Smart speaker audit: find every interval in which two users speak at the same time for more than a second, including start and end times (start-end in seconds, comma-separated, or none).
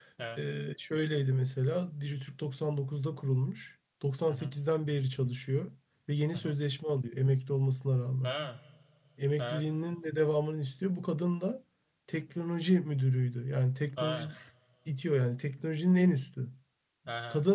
none